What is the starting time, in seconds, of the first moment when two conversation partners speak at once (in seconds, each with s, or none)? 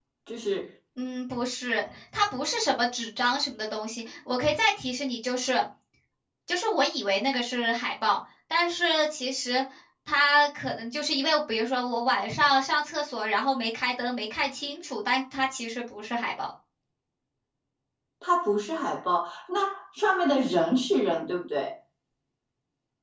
none